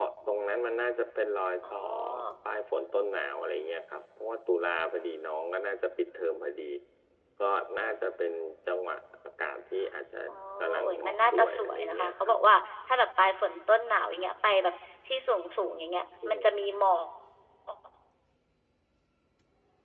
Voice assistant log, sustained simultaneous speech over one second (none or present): present